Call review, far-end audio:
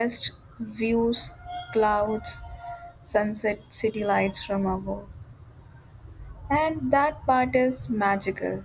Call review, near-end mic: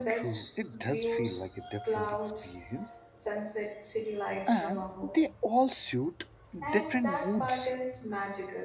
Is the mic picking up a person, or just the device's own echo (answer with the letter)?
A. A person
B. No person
A